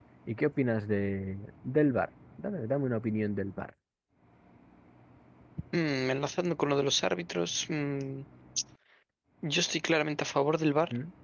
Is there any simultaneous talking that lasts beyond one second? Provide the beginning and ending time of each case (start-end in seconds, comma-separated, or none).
none